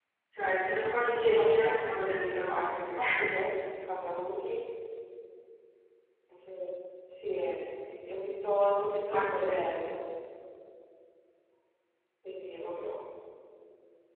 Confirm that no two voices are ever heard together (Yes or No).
No